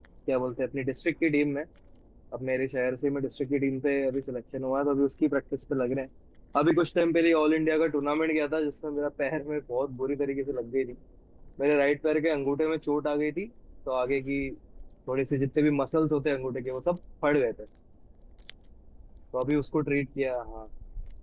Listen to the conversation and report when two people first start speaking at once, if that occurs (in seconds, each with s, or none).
none